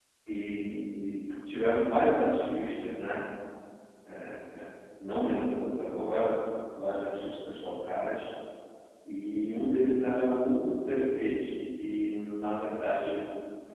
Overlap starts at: none

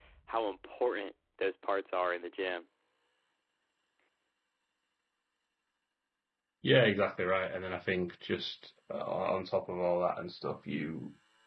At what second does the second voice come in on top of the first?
none

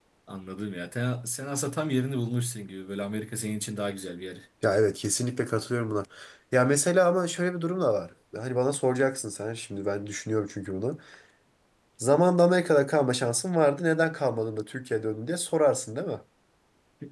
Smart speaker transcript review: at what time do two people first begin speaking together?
none

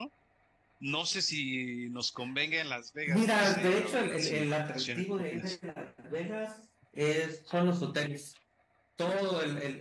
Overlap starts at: 3.1 s

